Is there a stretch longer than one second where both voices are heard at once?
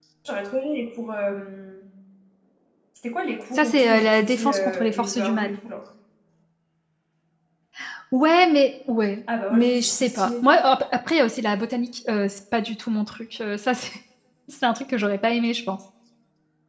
Yes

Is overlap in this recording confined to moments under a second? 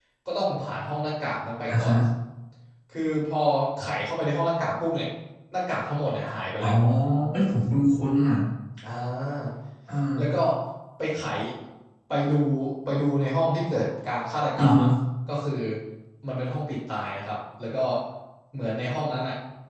Yes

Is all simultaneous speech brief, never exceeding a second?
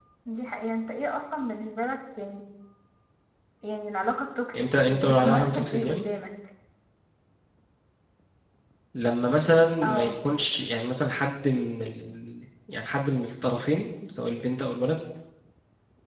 No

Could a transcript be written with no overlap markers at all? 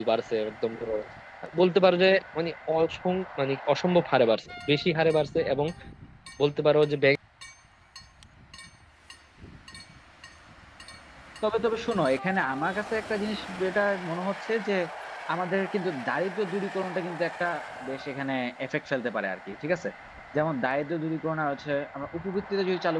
Yes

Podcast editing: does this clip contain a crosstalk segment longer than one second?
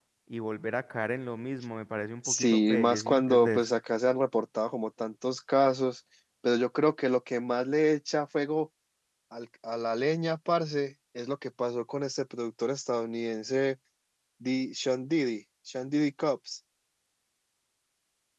Yes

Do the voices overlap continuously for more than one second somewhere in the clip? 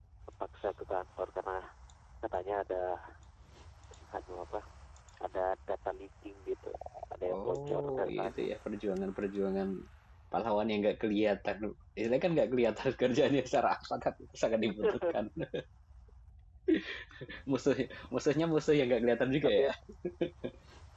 Yes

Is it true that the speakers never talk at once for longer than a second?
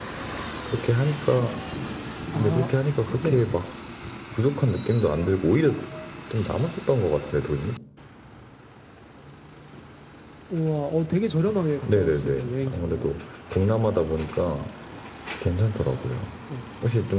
No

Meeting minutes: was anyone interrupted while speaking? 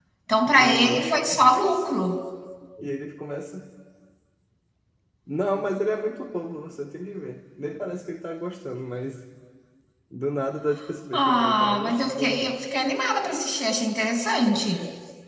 Yes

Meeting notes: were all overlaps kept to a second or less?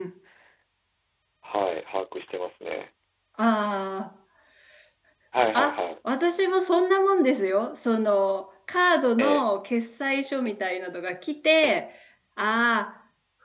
Yes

